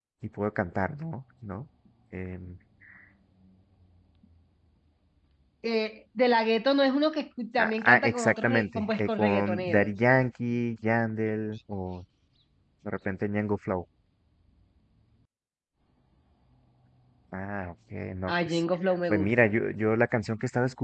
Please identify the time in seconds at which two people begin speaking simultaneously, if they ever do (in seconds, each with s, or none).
7.6 s